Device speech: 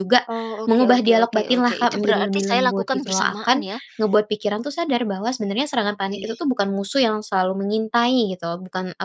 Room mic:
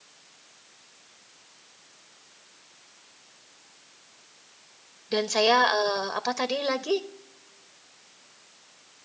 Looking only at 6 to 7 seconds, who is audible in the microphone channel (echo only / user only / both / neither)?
user only